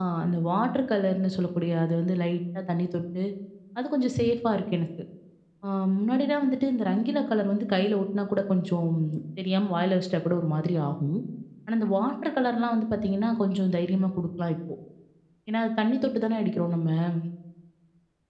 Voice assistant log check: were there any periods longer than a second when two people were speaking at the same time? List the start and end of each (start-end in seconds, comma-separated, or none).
none